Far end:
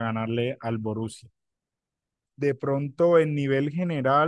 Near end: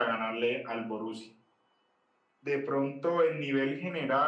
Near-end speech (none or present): none